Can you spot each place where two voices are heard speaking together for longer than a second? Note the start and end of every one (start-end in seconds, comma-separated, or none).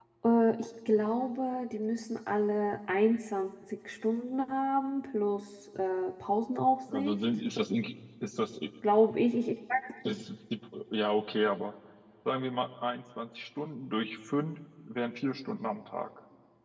none